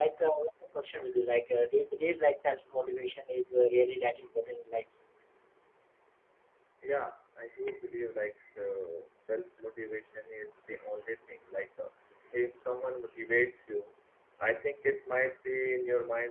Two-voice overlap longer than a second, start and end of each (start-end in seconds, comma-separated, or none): none